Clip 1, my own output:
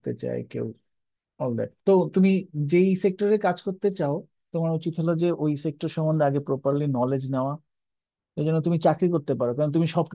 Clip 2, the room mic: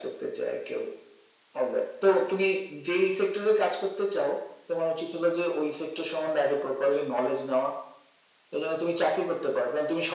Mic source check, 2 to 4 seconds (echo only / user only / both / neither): echo only